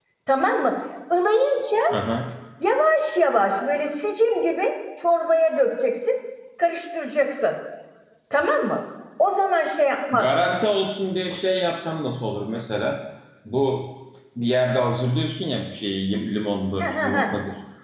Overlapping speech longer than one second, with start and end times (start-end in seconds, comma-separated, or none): none